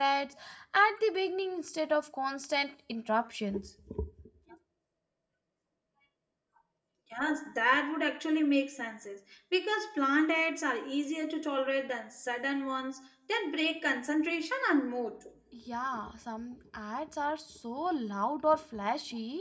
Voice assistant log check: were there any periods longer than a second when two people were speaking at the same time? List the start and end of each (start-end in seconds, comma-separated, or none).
none